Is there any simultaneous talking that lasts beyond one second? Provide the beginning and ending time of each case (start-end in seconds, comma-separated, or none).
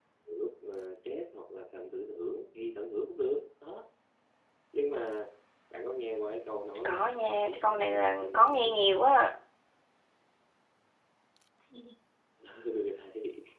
6.8-8.8